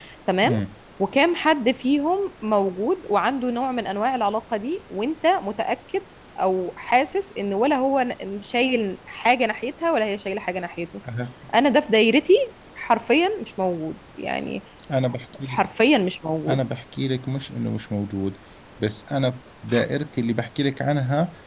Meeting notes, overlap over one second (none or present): none